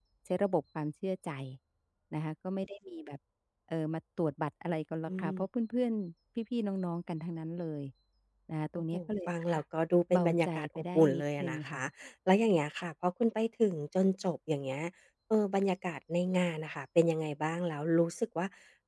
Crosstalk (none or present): present